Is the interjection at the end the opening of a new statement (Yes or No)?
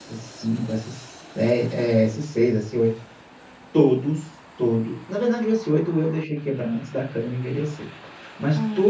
No